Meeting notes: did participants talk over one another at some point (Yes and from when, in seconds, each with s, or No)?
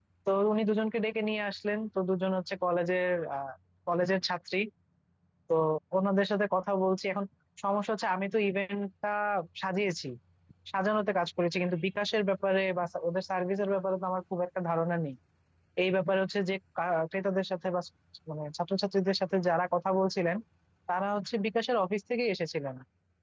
No